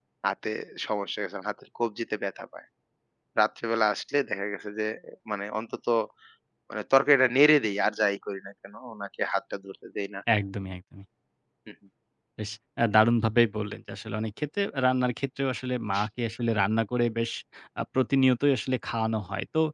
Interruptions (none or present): none